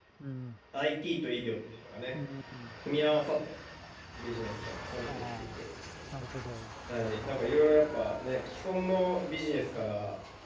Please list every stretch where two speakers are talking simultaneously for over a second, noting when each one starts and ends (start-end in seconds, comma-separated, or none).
none